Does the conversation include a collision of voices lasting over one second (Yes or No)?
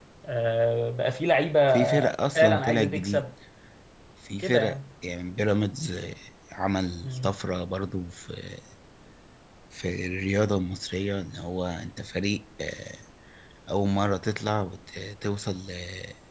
Yes